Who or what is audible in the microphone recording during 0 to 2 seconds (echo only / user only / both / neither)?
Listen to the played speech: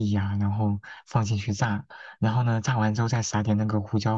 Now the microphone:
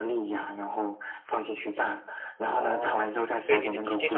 echo only